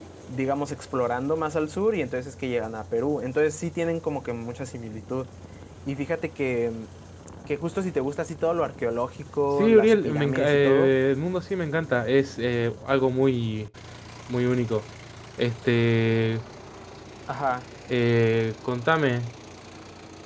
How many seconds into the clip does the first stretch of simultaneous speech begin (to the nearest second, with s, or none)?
10 s